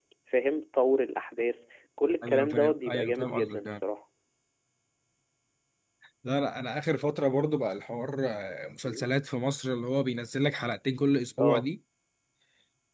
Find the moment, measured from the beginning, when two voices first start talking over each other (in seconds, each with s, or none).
2.2 s